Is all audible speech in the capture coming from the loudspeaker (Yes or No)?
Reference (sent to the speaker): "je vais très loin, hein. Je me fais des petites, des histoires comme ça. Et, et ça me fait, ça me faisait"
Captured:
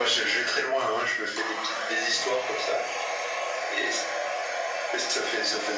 Yes